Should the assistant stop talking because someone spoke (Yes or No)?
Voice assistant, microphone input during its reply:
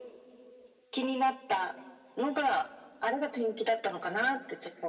No